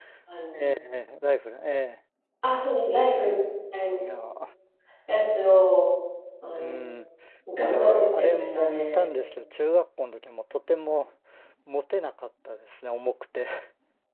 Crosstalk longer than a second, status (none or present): present